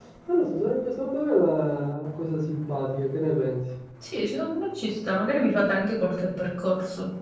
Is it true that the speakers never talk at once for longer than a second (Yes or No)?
Yes